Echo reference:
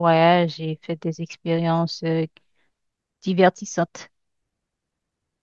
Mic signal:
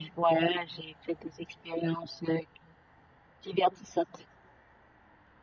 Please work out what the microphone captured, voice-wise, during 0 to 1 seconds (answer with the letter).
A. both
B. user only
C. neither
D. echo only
D